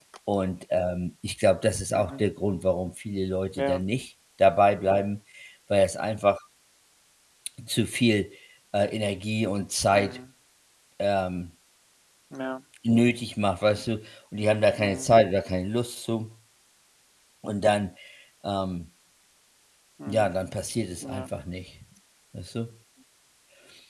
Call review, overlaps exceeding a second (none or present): none